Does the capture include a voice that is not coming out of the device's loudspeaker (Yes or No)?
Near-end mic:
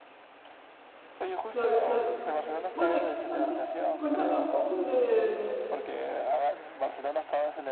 Yes